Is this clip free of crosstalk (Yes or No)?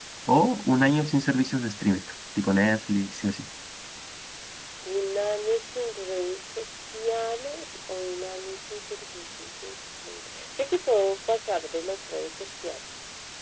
Yes